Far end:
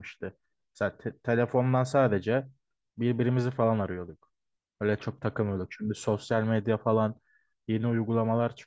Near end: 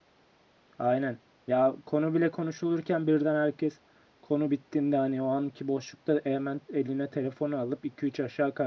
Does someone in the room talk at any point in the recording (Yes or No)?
Yes